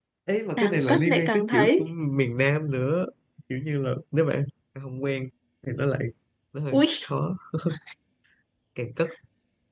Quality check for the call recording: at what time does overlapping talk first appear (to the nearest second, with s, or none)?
1 s